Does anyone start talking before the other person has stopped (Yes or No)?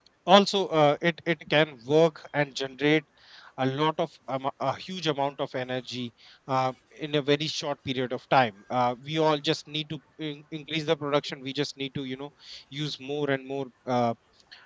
No